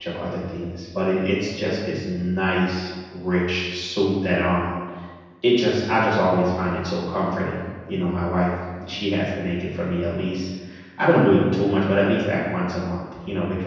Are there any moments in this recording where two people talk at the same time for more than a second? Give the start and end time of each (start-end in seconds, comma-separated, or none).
none